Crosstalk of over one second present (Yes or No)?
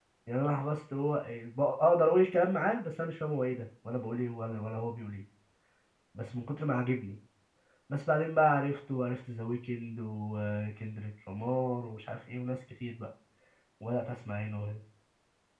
No